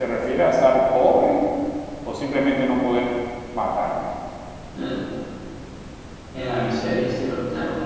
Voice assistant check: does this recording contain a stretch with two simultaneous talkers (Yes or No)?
No